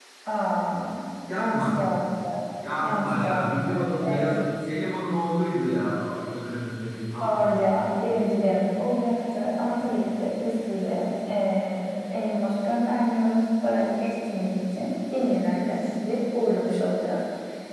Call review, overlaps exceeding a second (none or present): present